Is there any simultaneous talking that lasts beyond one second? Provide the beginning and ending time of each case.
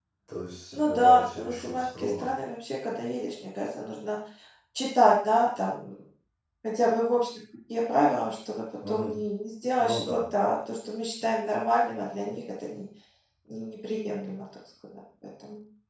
0.8-2.3

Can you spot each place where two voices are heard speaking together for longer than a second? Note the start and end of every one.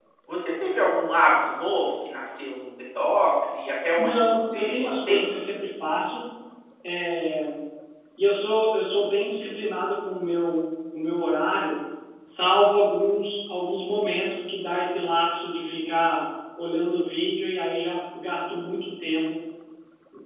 4.0-5.2

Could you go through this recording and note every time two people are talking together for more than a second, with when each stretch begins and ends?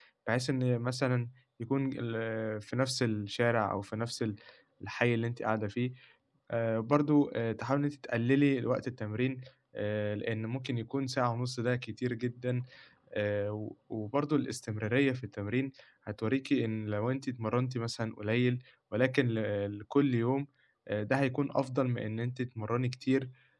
none

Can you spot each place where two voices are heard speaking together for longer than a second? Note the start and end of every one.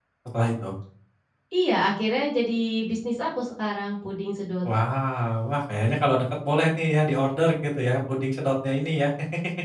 none

